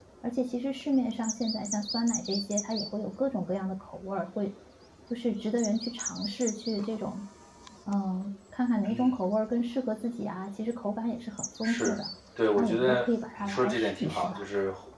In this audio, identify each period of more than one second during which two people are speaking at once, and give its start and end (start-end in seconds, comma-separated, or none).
12.6-14.5